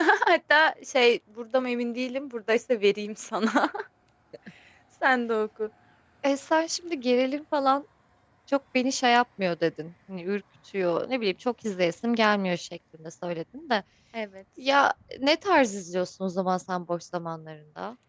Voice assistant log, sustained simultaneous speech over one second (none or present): none